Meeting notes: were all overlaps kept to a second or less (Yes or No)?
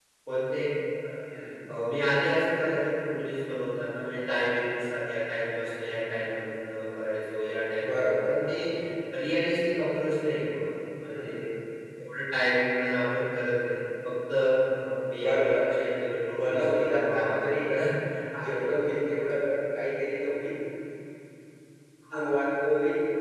No